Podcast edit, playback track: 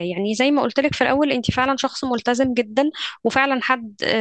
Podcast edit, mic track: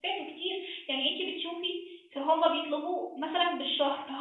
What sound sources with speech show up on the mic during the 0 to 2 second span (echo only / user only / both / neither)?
user only